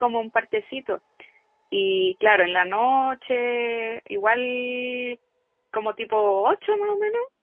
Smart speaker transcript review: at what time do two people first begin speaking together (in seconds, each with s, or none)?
none